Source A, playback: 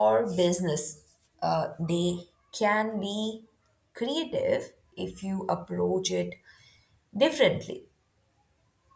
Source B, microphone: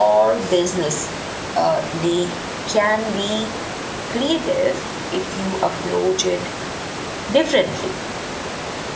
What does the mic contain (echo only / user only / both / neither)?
echo only